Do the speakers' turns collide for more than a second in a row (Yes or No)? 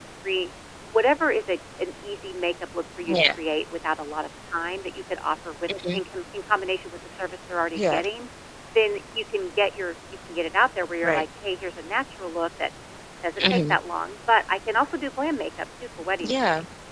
No